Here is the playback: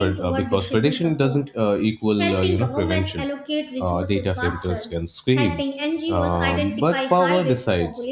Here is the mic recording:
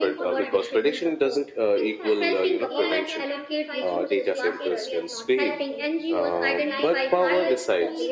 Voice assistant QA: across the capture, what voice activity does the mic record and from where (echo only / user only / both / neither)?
both